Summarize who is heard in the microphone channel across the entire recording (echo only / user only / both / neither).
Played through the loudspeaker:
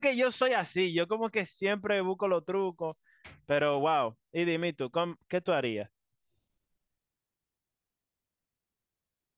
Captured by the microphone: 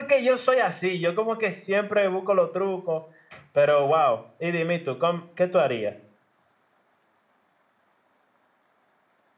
echo only